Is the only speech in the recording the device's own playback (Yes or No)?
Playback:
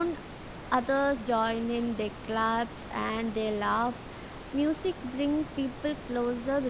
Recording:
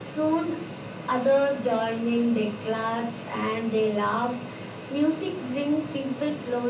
Yes